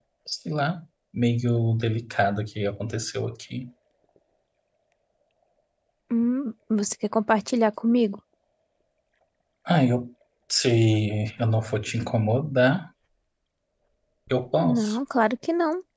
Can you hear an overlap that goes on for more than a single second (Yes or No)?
No